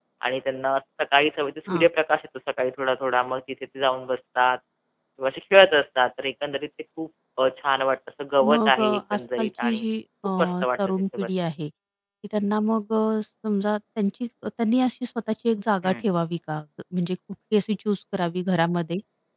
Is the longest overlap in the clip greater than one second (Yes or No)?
Yes